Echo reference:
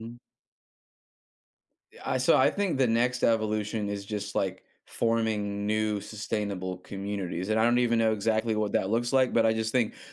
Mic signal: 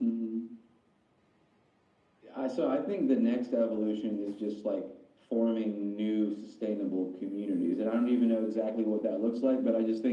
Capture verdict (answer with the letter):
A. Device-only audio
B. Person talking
A